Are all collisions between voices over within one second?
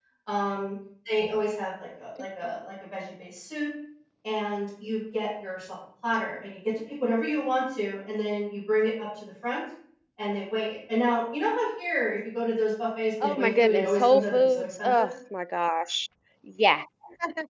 No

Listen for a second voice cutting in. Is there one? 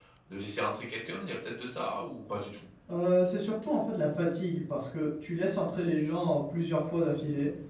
No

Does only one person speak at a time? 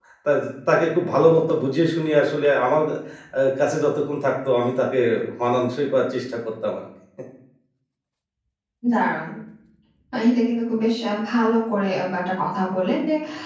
Yes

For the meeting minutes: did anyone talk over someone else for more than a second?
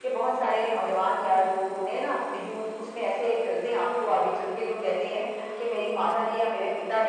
No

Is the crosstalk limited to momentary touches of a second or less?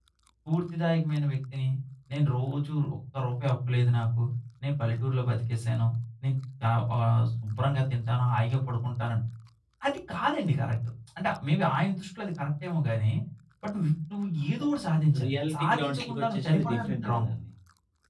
No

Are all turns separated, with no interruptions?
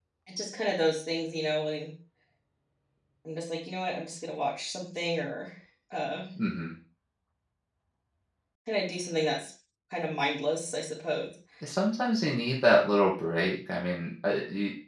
Yes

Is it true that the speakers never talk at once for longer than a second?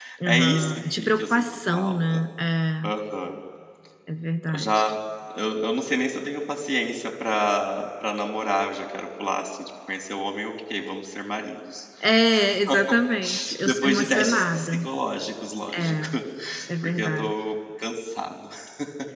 No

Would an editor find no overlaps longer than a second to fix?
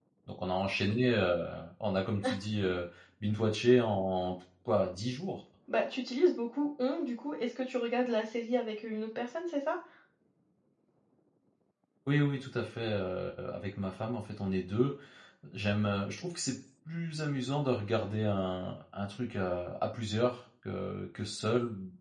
Yes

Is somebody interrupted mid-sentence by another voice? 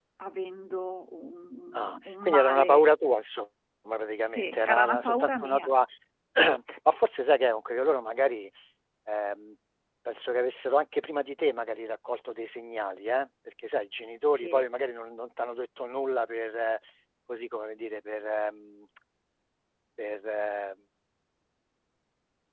Yes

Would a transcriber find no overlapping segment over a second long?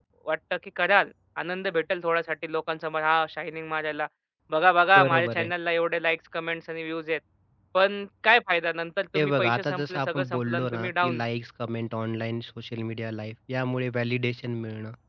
No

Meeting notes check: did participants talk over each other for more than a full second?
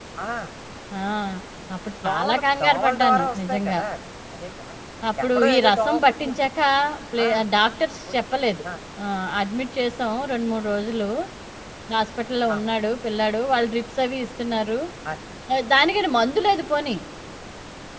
Yes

